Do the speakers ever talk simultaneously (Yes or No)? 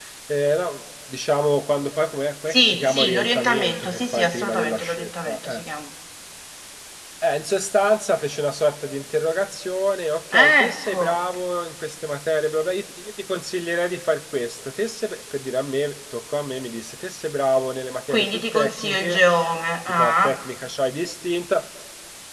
Yes